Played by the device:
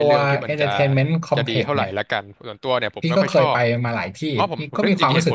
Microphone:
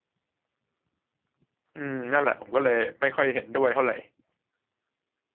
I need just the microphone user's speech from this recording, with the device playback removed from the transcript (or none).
อืมนั่นแหละผมก็เลยไม่ค่อยเห็นด้วยเท่าไหร่